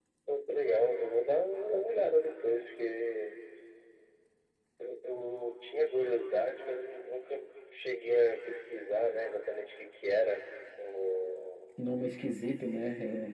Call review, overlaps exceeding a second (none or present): none